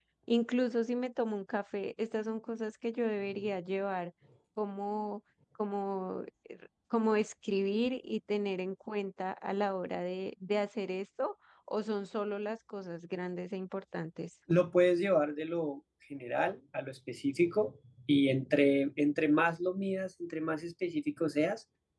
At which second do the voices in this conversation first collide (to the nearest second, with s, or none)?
none